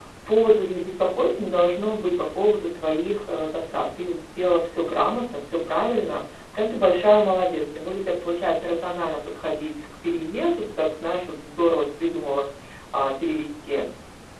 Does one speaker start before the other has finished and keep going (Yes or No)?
No